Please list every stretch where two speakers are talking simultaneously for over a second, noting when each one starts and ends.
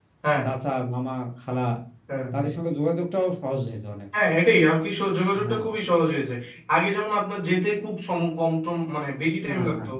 none

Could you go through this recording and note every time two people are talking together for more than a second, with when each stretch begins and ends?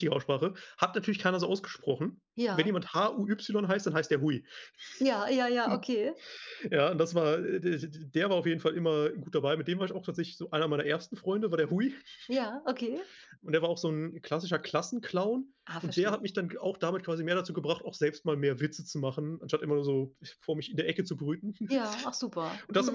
none

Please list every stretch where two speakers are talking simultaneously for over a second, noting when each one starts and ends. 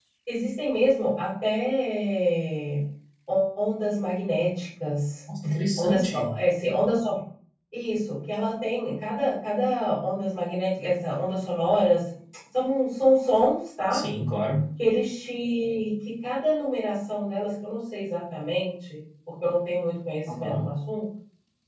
none

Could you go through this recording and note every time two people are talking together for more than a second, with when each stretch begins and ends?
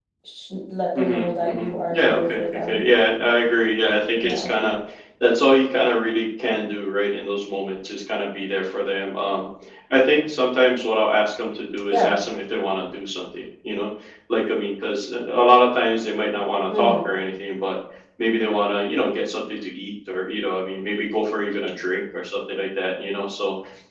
1.0-2.8

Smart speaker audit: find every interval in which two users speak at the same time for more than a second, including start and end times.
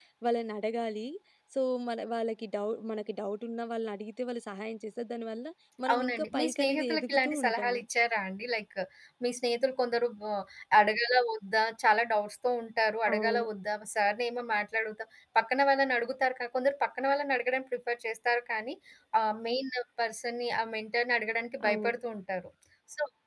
5.9-7.8

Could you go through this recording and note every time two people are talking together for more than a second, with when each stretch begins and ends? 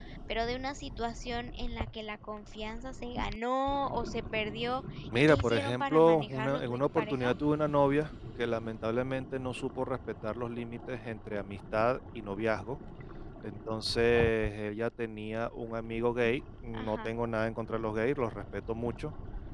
5.1-7.3

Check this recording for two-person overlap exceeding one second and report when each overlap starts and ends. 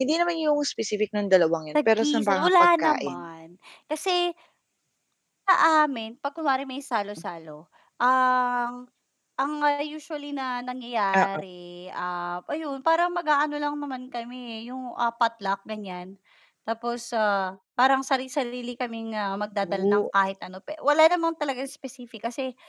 1.8-3.2

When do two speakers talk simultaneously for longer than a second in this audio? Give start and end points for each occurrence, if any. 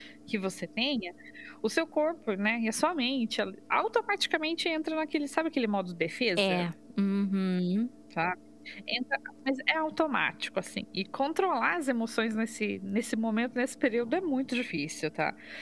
none

